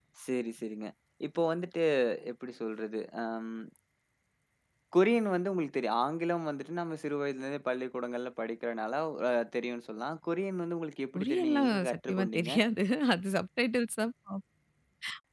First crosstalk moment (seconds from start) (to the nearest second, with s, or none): 11 s